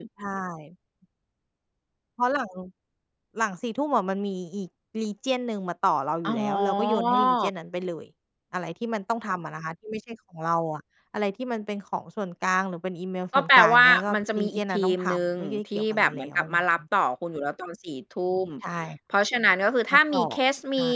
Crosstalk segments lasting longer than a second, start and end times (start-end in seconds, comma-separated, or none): 6.2-7.5, 13.3-16.6